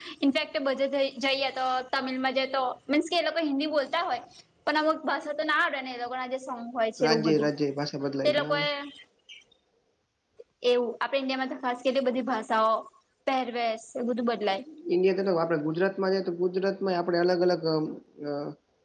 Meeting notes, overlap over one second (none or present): none